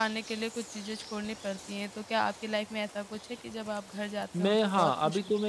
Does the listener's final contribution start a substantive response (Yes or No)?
Yes